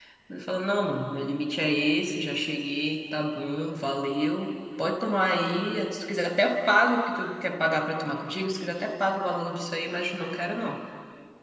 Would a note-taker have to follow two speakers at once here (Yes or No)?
No